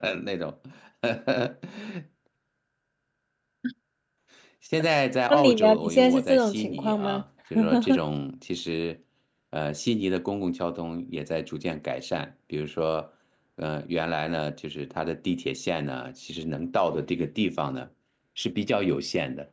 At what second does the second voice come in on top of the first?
5.3 s

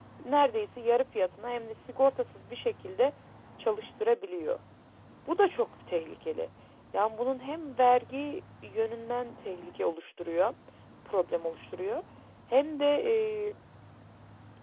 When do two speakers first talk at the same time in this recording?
none

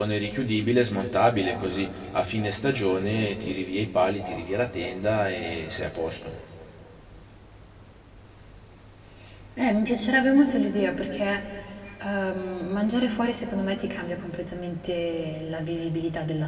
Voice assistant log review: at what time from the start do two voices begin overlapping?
none

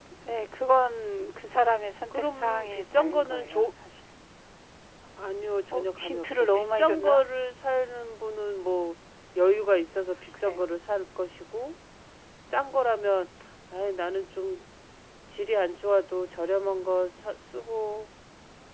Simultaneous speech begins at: 2.1 s

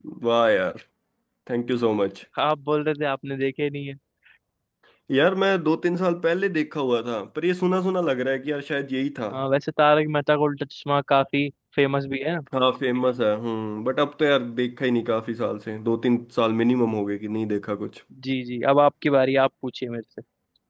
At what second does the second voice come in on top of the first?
none

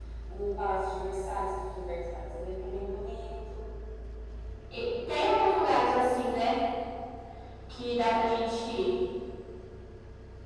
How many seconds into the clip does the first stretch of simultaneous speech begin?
none

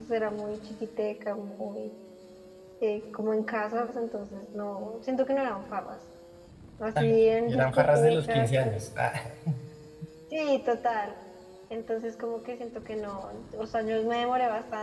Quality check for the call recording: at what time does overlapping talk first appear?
7.0 s

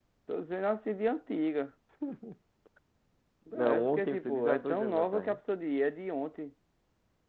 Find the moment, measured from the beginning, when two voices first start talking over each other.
3.6 s

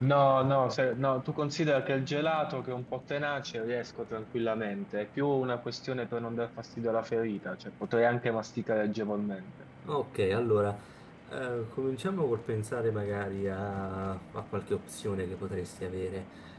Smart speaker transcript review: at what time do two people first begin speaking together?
none

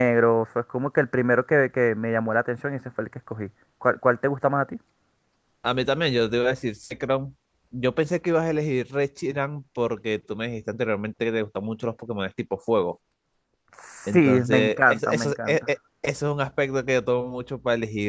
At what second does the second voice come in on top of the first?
14.1 s

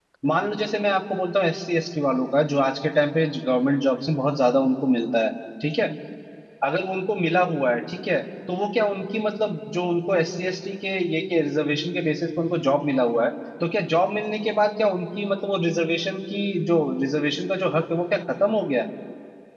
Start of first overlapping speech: none

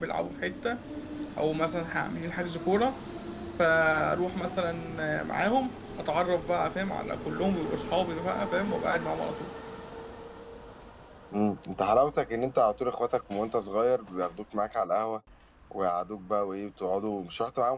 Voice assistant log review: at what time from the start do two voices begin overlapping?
none

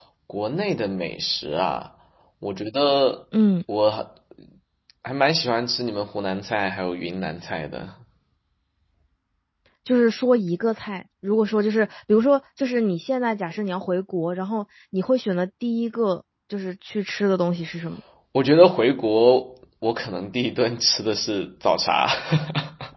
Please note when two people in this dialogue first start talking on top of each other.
none

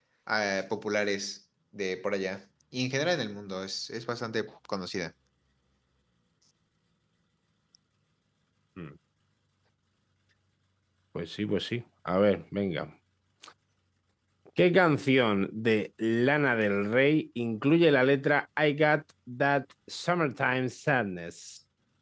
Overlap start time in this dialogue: none

